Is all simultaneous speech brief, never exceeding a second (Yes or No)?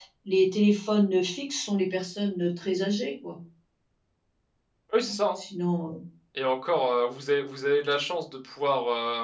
Yes